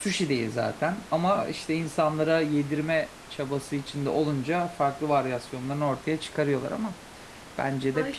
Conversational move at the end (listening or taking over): taking over